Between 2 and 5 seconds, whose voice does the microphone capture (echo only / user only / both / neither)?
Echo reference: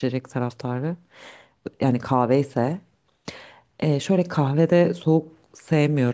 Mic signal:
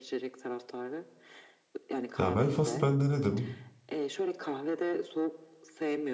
both